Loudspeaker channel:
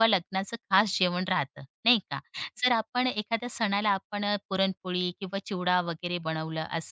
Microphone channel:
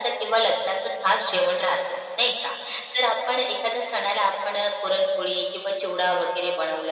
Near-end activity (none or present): none